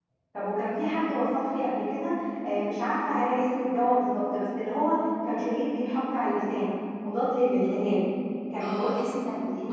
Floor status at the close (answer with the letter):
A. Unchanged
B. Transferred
B